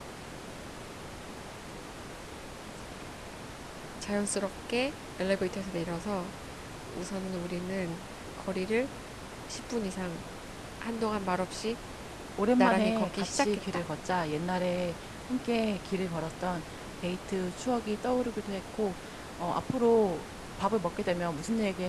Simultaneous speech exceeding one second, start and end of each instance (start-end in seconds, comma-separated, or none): 12.6-13.8